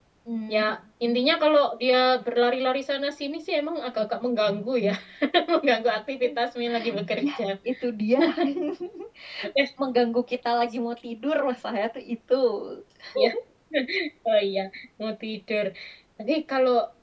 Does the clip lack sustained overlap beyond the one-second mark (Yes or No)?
Yes